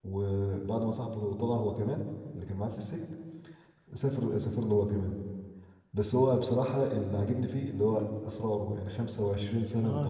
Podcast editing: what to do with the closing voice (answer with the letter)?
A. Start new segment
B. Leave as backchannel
A